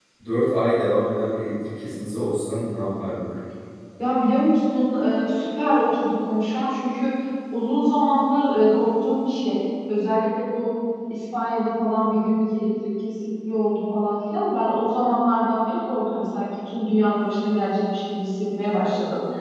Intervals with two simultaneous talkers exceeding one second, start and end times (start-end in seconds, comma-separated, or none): none